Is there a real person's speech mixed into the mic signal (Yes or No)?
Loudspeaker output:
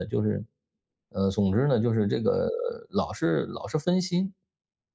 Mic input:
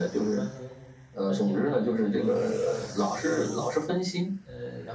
Yes